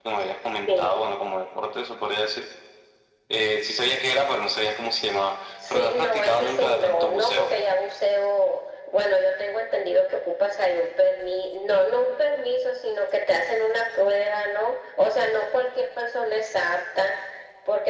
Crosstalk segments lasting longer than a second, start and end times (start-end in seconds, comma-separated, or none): 5.7-7.6